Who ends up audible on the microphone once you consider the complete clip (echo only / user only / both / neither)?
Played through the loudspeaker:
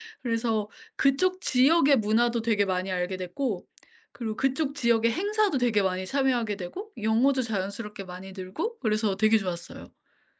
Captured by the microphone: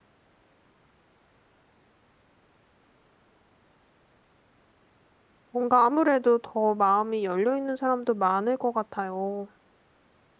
user only